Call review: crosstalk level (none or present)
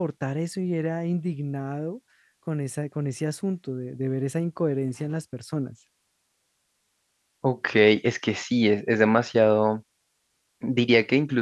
none